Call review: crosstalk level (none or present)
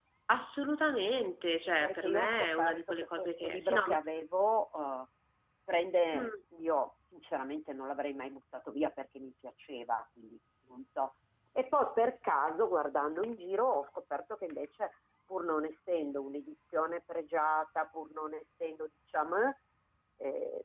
present